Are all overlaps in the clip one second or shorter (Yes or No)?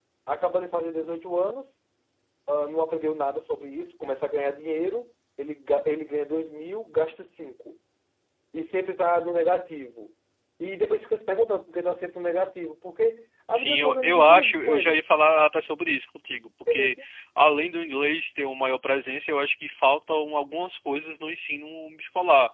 No